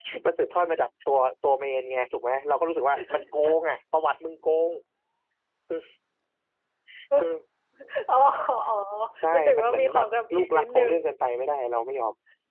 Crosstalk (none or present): present